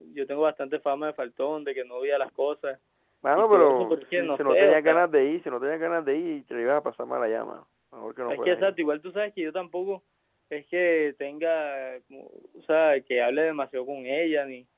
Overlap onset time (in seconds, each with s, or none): 3.4 s